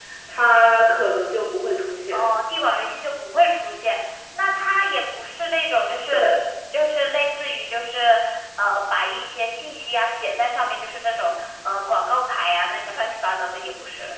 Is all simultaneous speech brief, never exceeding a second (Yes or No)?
Yes